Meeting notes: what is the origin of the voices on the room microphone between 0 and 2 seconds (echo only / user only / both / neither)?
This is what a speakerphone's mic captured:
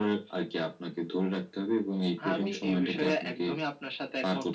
echo only